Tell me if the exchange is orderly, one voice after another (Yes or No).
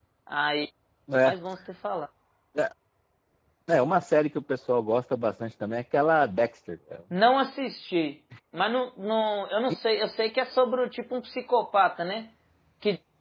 Yes